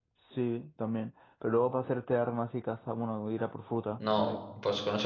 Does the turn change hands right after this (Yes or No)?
Yes